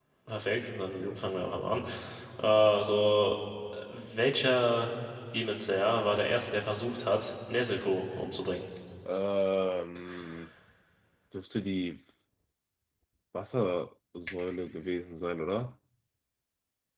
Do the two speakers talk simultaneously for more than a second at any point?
No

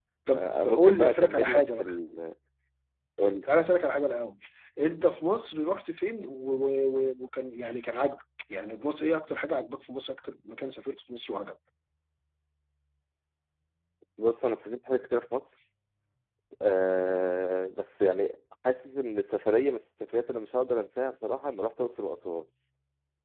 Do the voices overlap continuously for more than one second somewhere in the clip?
Yes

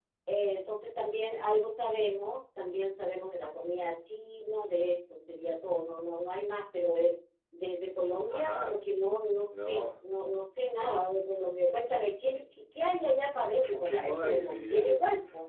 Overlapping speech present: Yes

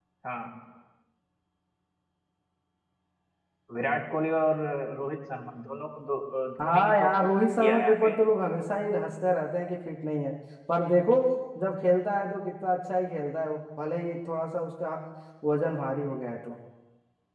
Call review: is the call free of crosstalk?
No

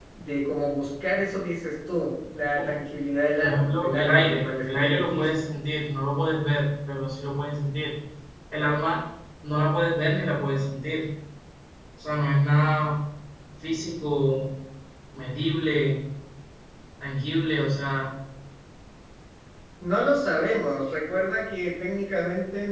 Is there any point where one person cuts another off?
Yes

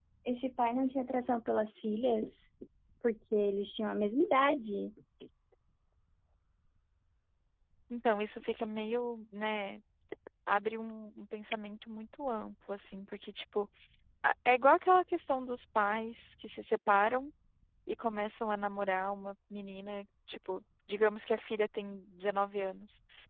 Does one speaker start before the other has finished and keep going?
No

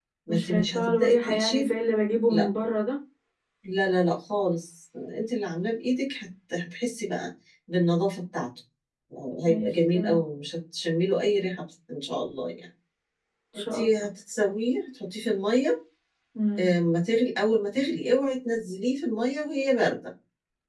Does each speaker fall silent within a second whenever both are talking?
No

